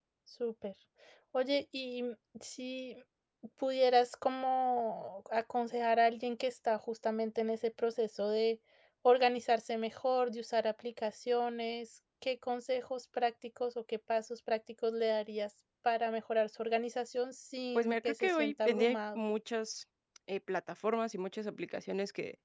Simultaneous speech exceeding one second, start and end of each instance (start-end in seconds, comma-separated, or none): 17.8-19.2